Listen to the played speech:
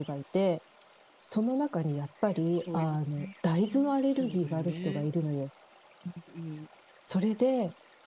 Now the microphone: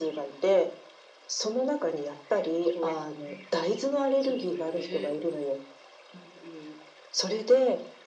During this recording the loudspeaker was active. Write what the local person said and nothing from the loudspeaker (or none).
none